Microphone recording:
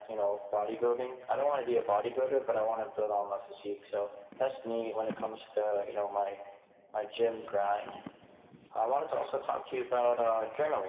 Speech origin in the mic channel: echo only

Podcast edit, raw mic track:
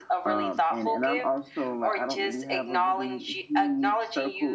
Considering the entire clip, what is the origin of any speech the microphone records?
both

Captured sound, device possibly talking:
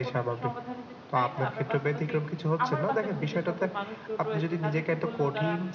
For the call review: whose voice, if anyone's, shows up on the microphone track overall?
both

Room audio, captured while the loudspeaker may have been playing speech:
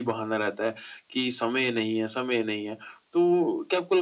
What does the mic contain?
echo only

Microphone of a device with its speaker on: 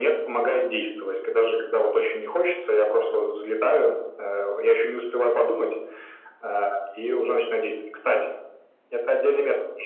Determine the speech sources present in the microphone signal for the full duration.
echo only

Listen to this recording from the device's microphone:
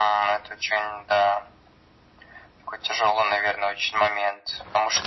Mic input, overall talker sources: echo only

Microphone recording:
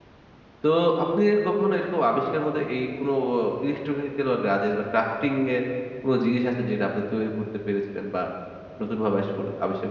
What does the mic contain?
user only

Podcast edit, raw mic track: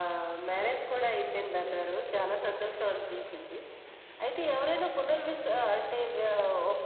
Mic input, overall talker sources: both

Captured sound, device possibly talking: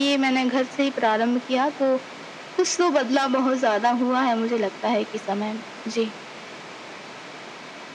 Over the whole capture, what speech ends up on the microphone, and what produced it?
echo only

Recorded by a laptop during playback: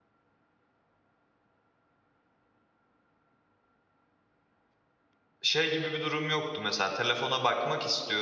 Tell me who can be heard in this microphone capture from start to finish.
user only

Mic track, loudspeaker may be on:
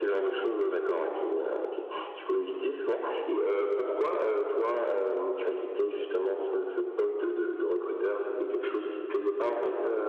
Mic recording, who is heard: echo only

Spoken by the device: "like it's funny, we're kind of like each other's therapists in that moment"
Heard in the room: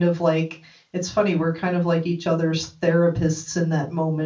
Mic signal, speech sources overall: echo only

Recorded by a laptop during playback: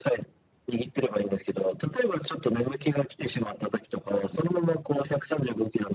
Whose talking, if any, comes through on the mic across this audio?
echo only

